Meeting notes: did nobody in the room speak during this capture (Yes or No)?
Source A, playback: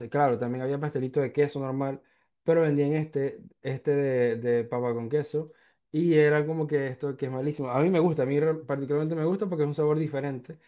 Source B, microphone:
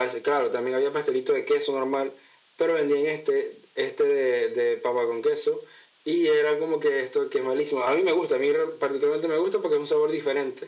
Yes